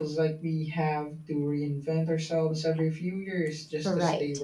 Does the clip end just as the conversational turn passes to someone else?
Yes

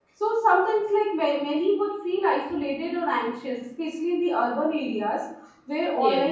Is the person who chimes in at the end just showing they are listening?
Yes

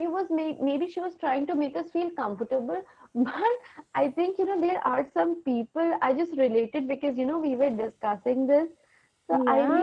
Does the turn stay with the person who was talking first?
Yes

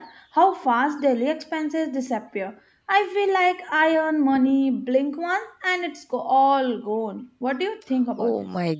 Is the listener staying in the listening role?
No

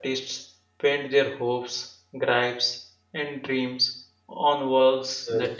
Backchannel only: Yes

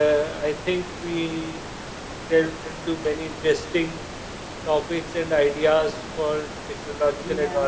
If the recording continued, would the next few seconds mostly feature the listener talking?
No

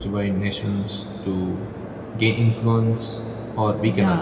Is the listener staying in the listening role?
No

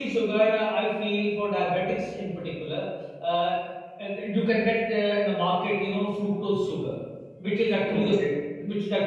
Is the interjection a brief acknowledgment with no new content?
Yes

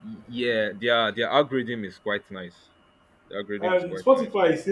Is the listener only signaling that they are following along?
No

